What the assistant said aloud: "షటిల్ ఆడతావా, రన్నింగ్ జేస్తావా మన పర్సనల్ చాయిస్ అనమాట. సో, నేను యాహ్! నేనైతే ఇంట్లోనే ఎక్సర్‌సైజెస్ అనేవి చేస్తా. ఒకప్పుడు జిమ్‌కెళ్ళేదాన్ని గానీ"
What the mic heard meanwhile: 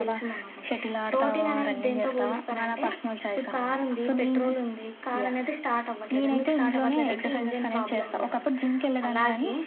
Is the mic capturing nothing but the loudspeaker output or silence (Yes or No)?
No